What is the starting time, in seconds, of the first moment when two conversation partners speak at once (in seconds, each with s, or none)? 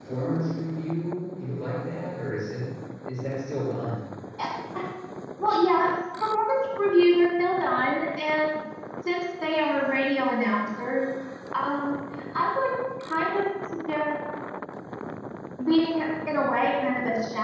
none